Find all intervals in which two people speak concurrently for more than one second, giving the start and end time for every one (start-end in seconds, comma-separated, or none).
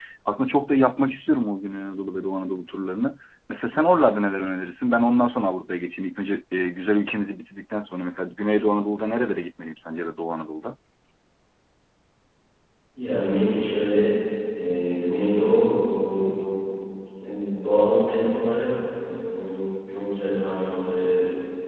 none